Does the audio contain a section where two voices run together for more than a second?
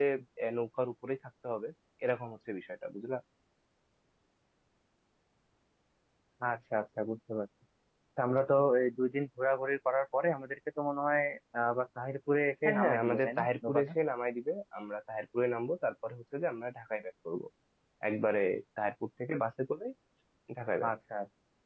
Yes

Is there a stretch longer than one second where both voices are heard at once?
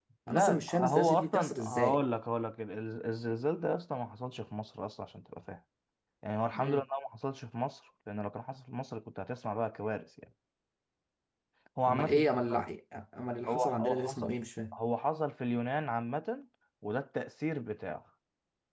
Yes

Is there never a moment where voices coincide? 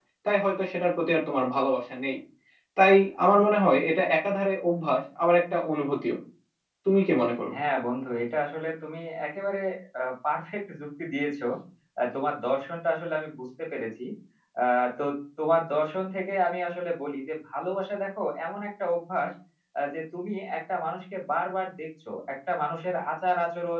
Yes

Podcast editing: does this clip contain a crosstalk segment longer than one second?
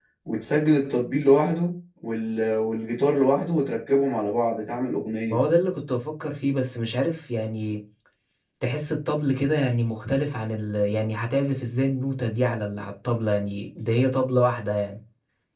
No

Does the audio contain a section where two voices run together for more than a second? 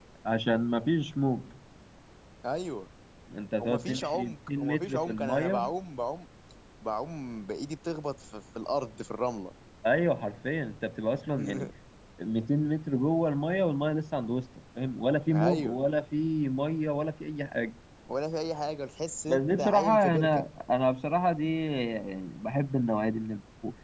Yes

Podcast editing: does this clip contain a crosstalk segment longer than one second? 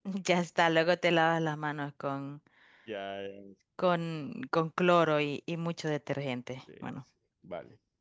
No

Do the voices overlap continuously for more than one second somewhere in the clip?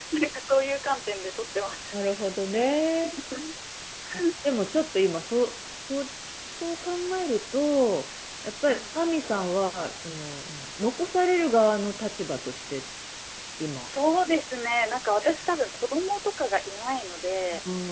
No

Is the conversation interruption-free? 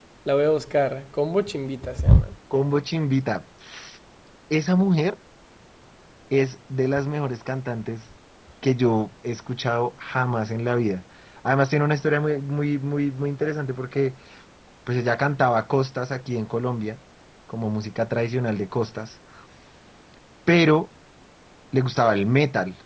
Yes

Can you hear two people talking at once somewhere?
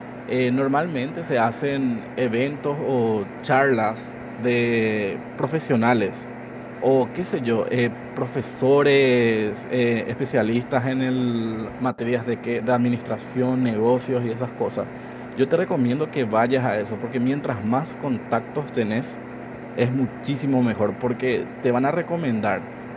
No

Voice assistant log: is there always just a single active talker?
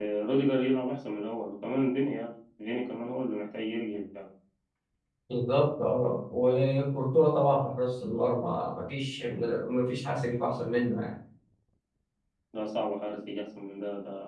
Yes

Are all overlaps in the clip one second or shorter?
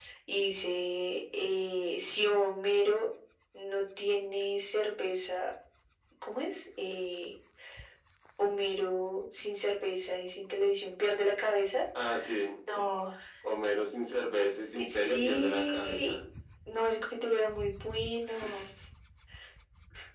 No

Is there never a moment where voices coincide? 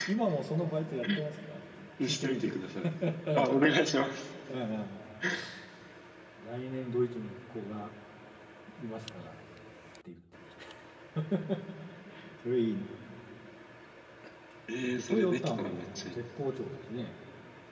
No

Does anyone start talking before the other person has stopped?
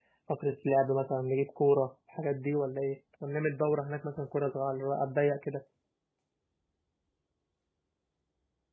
No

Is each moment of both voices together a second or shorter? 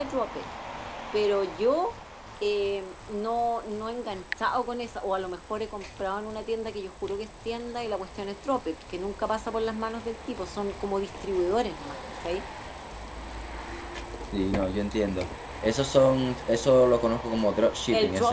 Yes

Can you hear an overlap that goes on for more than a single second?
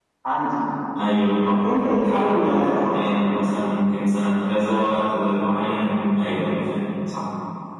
Yes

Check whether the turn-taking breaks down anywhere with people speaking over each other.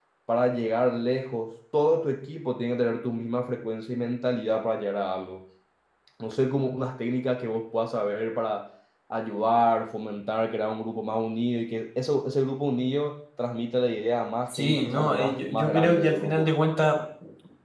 Yes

